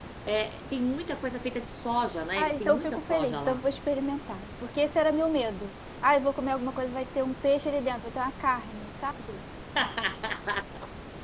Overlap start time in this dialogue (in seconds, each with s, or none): 2.3 s